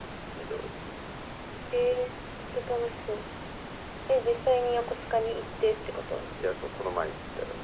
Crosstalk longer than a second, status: none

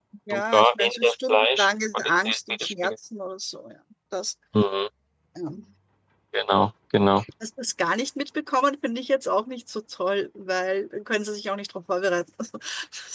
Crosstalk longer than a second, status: present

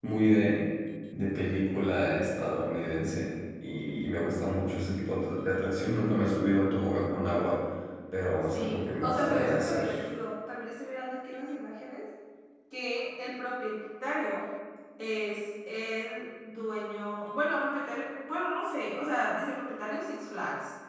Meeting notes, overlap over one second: present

